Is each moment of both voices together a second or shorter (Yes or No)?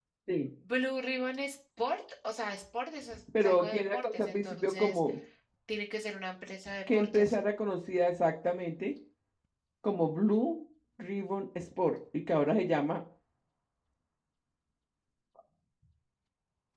No